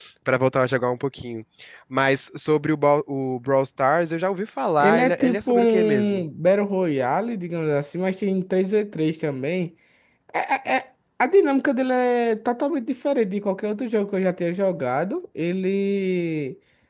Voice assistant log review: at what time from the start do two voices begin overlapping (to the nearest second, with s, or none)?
5 s